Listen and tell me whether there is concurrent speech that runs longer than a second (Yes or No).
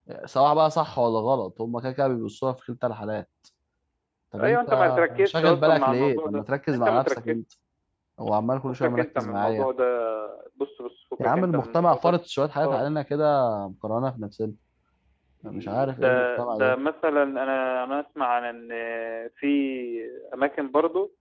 Yes